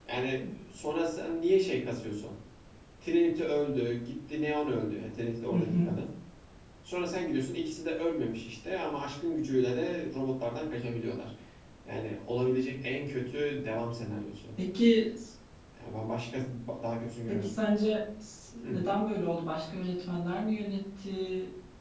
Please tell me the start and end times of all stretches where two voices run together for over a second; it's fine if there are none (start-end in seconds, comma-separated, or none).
none